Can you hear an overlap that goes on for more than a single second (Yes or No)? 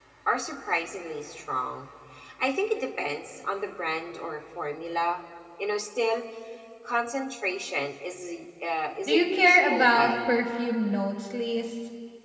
Yes